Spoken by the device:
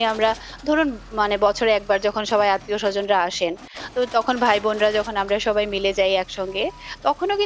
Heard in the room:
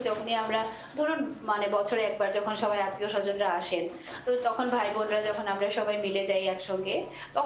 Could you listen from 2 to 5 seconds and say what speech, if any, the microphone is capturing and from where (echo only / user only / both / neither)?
echo only